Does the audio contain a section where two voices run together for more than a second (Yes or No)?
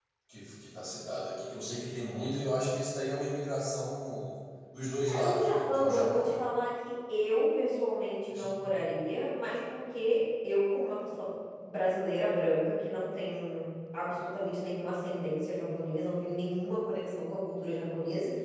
Yes